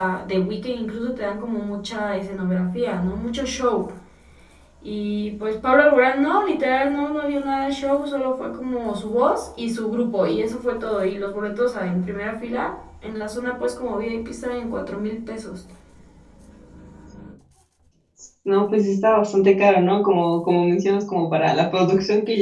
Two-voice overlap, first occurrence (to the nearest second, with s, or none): none